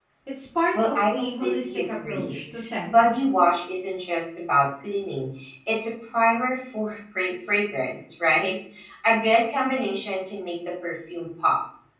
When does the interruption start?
0.8 s

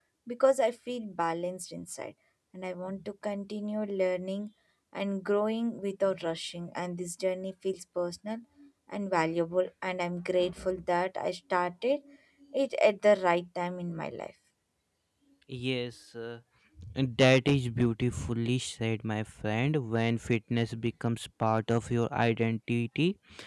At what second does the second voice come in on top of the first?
none

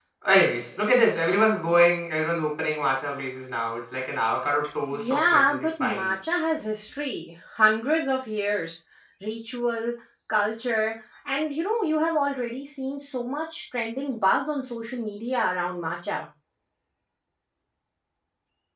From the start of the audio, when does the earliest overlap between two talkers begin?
4.9 s

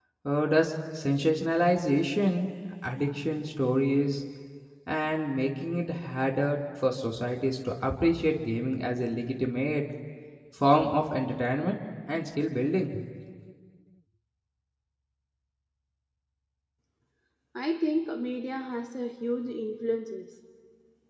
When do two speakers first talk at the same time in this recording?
none

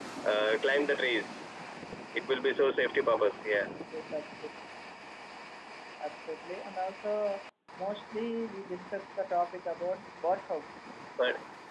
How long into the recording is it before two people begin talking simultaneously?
none

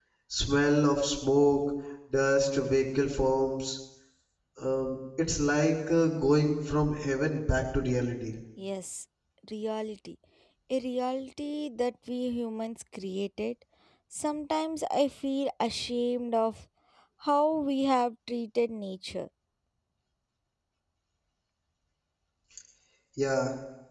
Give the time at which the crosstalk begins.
none

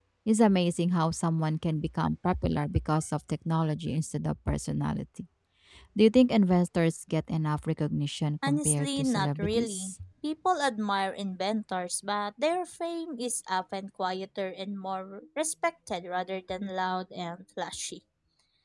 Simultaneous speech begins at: 8.4 s

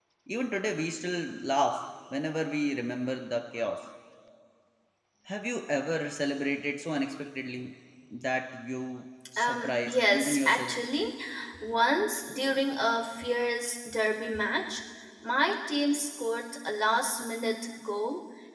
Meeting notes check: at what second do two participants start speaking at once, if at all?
9.4 s

